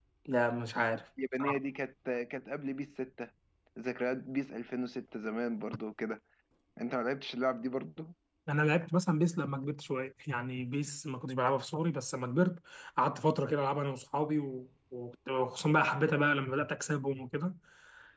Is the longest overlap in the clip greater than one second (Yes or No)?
No